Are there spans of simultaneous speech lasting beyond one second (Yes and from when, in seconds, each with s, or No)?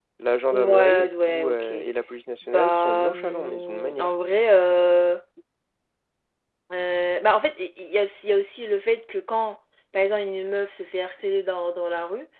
Yes, from 0.5 s